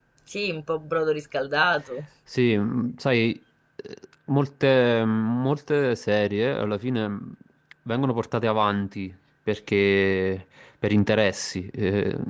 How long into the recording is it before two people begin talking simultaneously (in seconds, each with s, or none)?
none